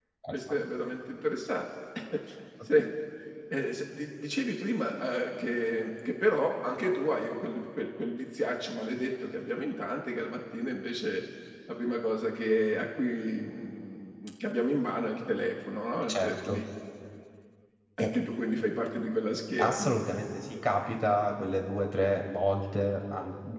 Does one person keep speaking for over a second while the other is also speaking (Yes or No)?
No